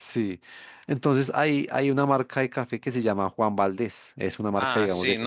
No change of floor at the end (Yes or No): No